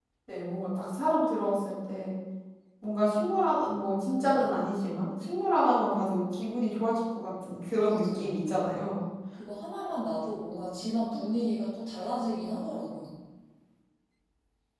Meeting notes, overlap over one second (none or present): none